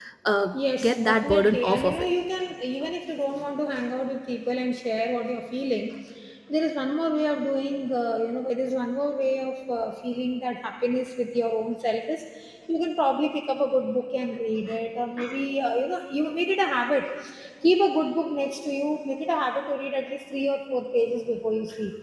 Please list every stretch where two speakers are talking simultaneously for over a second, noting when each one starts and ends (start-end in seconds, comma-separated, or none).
0.8-2.1